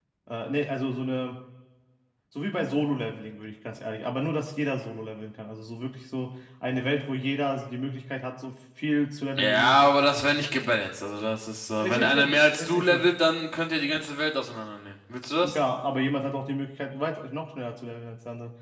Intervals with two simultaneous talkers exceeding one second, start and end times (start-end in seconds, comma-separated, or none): 11.8-13.1